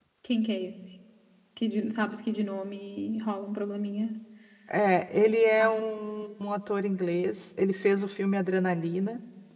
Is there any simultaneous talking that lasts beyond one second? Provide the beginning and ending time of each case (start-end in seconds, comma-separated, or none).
none